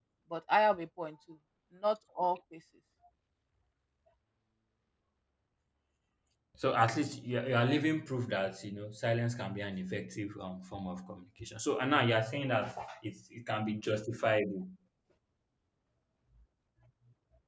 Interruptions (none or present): none